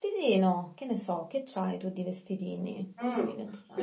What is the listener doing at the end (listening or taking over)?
taking over